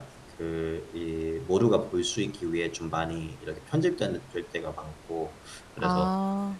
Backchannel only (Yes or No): Yes